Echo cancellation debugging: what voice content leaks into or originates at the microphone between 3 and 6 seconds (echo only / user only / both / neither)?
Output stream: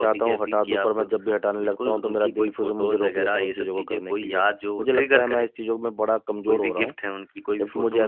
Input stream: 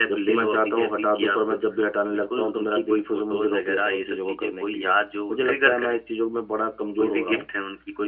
echo only